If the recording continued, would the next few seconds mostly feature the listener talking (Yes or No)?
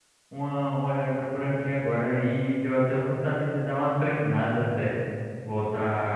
No